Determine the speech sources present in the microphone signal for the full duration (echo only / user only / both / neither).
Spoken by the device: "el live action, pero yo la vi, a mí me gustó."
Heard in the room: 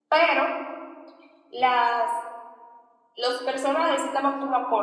user only